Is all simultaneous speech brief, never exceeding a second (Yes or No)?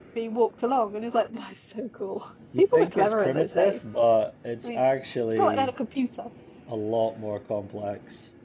No